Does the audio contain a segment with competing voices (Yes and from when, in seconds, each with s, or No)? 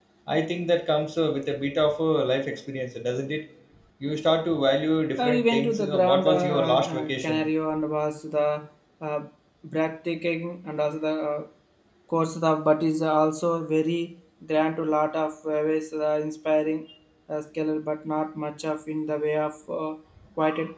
Yes, from 5.2 s